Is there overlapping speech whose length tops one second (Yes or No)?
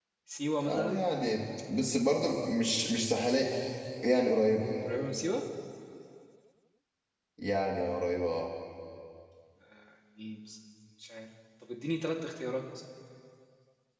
No